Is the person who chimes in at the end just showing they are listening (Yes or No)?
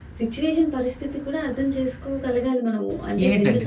No